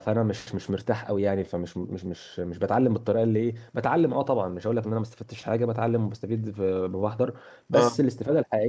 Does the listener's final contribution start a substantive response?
No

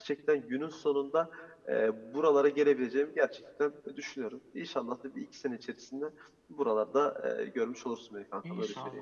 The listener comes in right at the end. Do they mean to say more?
Yes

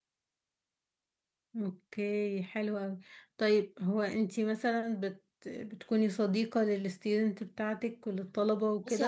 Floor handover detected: Yes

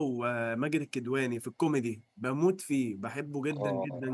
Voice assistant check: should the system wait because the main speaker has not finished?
No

